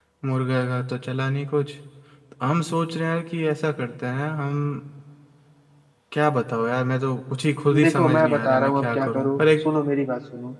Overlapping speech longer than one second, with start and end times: 7.8-9.7

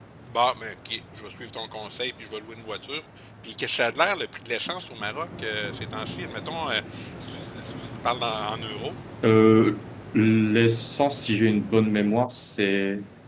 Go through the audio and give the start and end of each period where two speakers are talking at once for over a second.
none

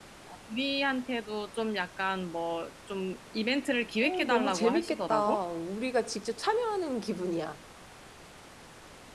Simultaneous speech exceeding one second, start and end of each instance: 4.0-5.4

